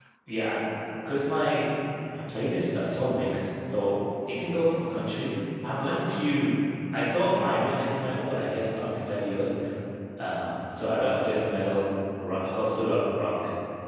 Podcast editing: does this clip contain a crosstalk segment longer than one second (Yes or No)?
No